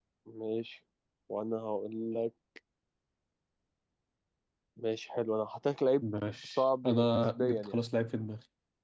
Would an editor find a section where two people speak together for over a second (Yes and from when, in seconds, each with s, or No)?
Yes, from 6.5 s